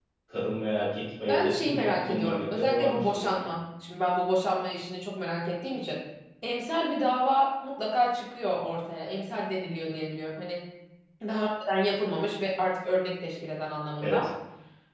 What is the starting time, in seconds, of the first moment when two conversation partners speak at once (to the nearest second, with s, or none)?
1 s